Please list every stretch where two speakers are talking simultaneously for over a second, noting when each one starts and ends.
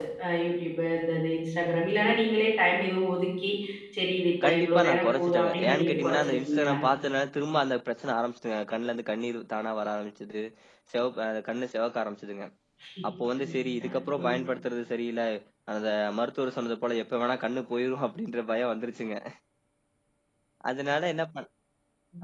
4.5-6.8

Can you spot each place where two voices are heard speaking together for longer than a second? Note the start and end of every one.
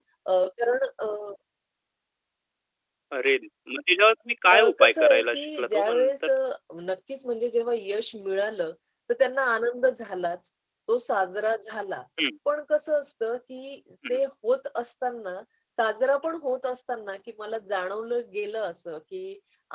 4.5-6.1

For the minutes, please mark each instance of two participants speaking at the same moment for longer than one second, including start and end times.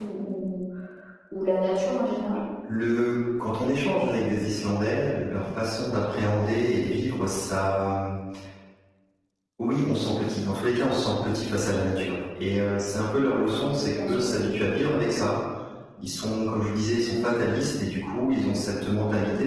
none

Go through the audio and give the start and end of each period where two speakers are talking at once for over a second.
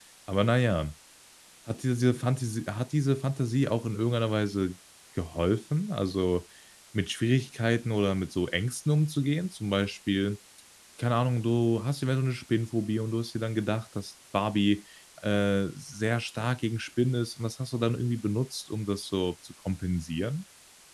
none

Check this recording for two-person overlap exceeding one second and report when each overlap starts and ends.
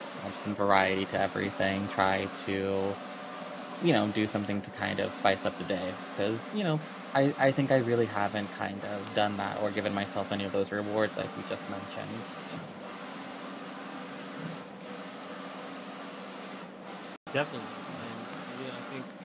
none

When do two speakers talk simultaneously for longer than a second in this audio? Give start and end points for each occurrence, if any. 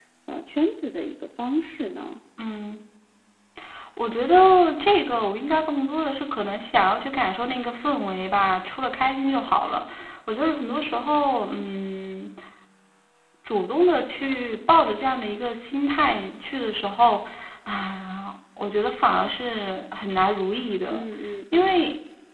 none

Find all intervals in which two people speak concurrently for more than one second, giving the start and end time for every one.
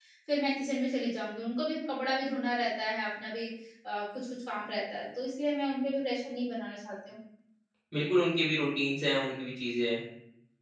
none

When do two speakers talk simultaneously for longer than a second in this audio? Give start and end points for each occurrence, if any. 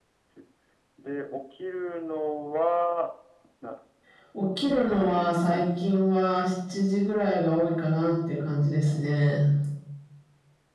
4.8-6.1

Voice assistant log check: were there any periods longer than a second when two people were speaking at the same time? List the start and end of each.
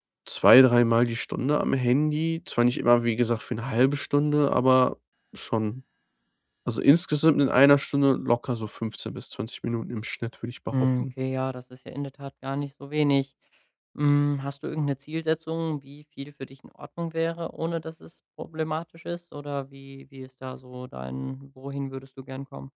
none

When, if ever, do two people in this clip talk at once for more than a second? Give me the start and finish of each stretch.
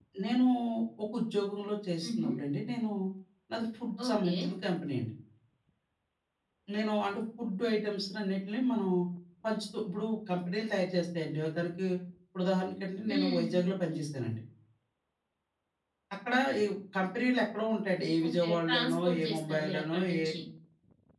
18.3-20.2

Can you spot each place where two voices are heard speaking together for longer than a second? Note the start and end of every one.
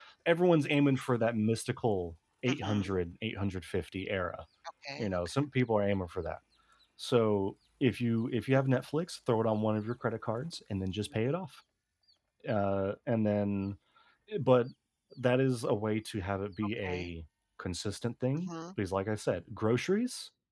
none

